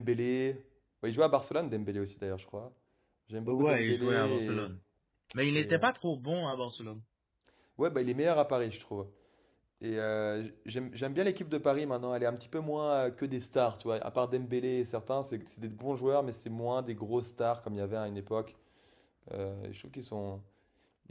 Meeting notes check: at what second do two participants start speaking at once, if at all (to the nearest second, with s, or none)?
3 s